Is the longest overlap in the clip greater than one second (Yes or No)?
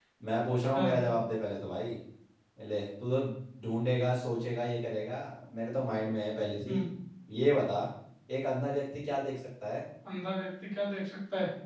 No